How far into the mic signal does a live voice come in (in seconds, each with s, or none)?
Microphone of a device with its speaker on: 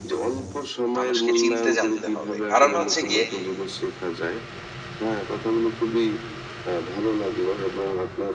1.0 s